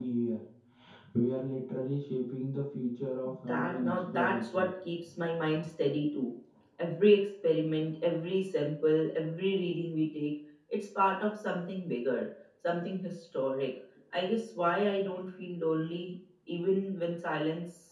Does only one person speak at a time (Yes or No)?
No